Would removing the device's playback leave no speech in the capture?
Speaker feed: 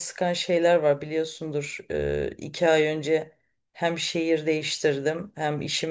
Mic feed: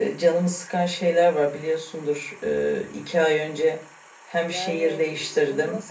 No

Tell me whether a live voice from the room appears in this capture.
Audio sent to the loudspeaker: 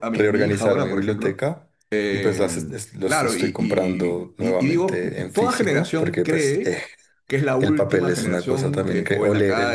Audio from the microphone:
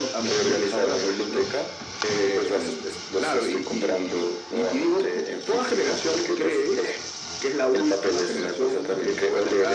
No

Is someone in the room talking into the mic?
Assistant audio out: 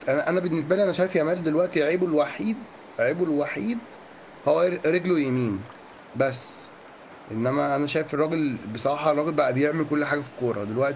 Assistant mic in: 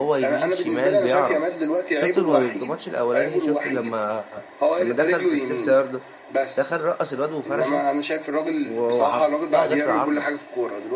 Yes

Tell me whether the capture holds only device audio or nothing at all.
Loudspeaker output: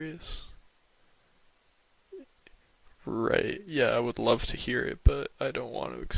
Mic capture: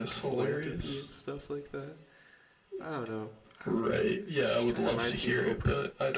No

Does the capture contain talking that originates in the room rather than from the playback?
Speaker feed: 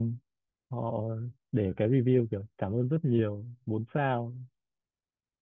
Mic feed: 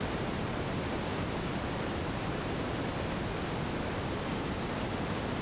No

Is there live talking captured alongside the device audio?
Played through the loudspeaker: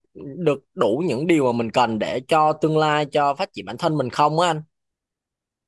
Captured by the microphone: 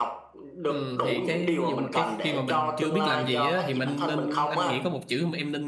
Yes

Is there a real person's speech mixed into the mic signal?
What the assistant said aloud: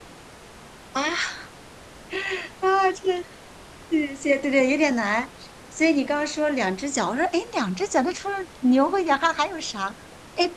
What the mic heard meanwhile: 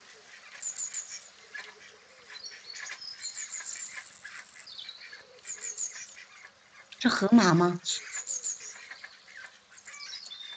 Yes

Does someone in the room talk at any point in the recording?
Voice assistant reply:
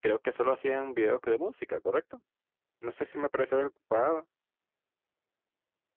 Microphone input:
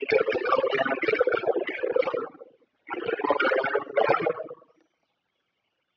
No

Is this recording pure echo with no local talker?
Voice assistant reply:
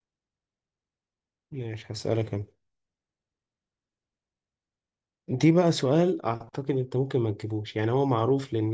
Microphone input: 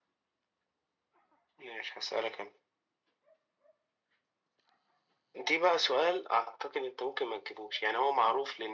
Yes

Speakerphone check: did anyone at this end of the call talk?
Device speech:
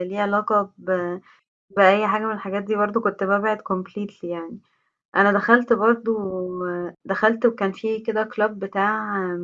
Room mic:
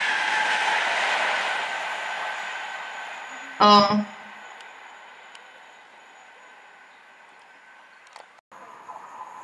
Yes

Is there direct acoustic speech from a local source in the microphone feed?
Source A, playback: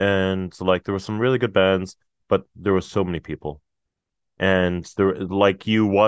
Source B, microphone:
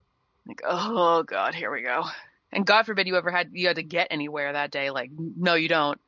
Yes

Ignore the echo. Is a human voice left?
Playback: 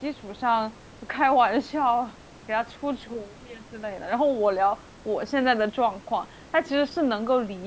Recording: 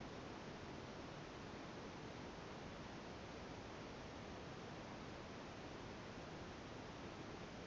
No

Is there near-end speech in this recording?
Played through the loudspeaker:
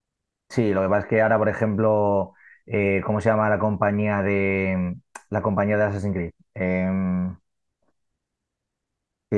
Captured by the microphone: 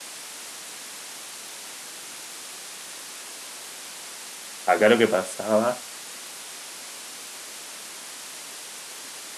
Yes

